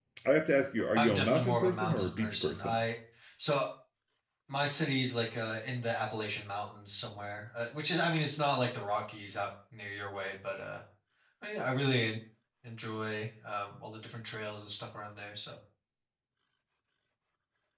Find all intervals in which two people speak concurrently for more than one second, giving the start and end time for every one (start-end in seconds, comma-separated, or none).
0.9-2.8